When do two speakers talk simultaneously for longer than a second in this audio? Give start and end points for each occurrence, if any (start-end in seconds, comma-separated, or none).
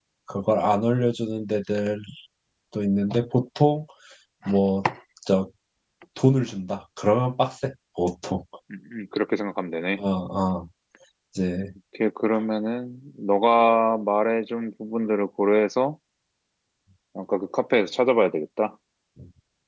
none